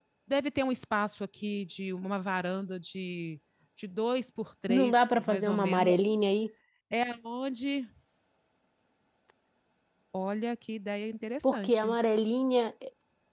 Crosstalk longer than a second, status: present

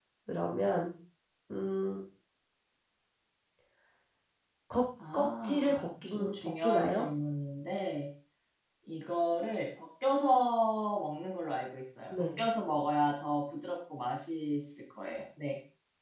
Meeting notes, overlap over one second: present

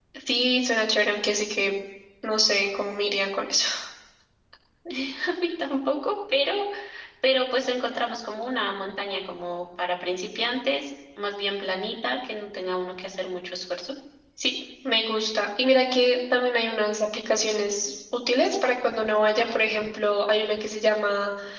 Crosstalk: none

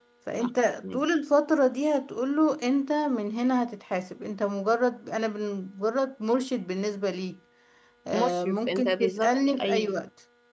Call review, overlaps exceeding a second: present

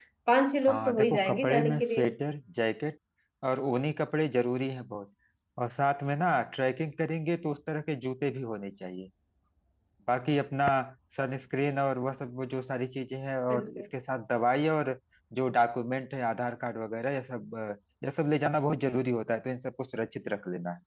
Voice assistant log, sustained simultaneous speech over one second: present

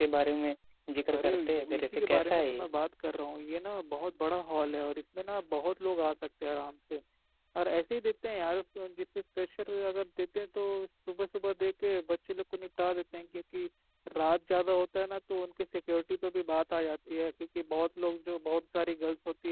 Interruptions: present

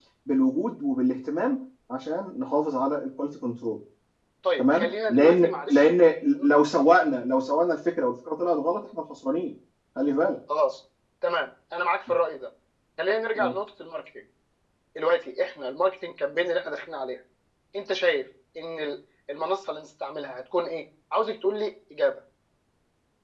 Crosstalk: present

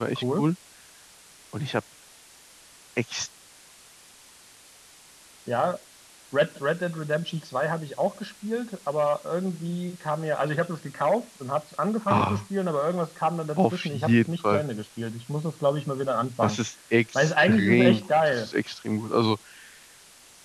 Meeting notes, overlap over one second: present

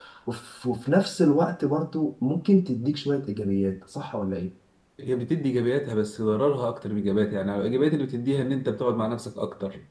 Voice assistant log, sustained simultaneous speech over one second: none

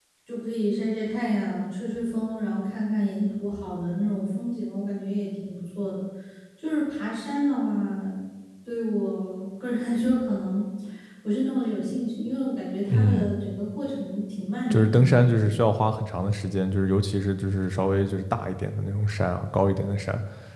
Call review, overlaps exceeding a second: none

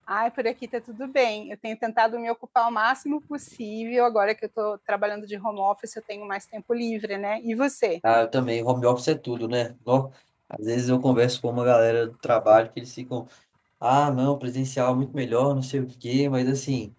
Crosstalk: none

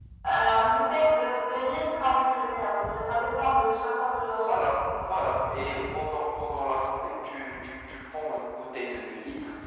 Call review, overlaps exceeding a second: none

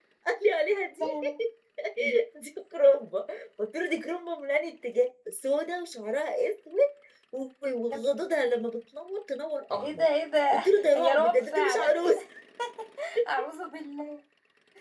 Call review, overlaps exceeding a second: present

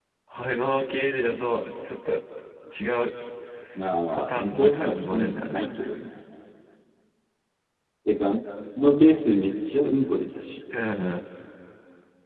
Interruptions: present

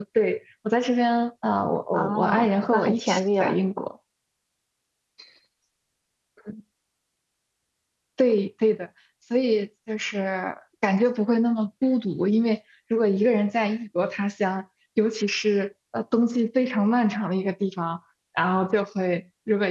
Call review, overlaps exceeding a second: present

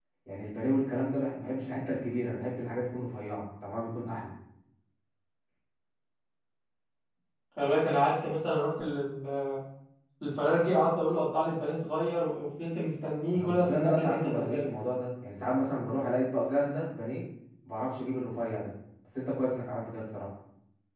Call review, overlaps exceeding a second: present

